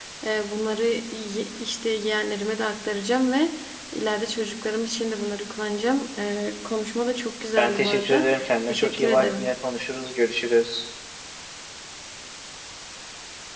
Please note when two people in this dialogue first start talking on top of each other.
7.6 s

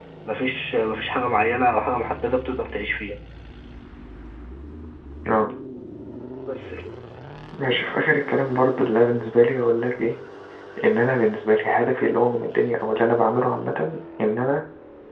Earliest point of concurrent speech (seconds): none

